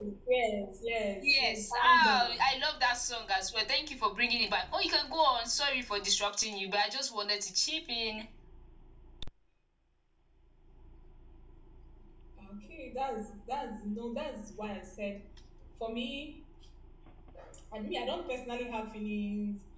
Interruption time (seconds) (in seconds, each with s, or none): 1.2 s